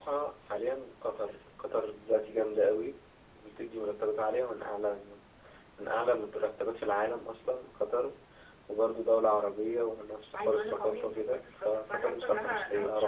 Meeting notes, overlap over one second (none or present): present